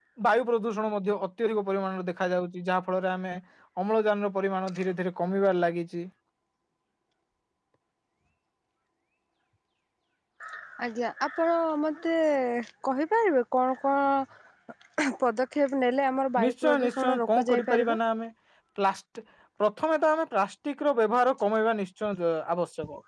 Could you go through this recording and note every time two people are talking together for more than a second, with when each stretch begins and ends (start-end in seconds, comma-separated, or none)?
16.4-18.0